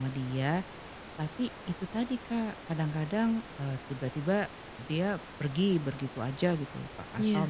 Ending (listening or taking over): listening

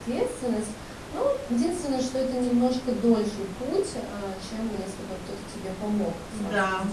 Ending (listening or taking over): taking over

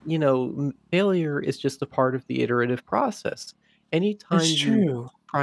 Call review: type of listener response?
listening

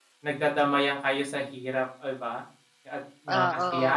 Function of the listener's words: listening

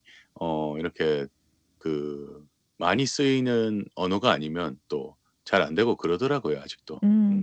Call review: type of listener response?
taking over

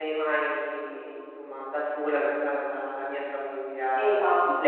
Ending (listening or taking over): taking over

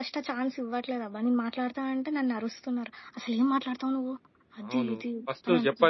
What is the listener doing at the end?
taking over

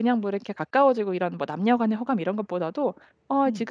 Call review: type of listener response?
listening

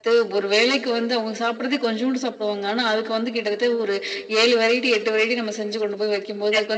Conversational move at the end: taking over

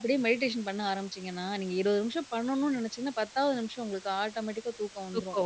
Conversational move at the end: listening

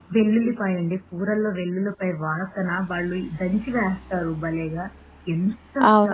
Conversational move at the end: taking over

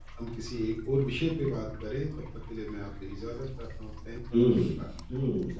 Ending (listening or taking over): taking over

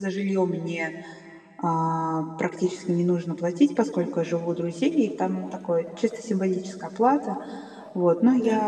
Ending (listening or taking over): listening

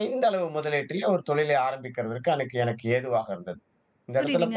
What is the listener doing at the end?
taking over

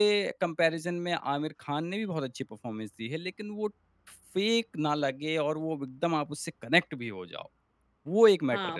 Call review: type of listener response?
taking over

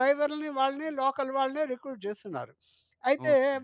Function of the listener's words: listening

